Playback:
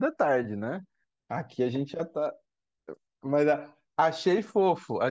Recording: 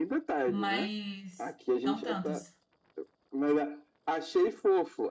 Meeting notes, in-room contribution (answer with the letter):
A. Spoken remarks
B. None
A